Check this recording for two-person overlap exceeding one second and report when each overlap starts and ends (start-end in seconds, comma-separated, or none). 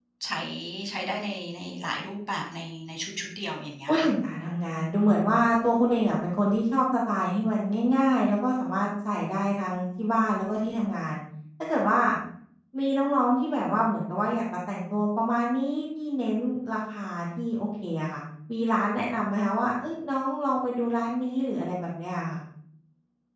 none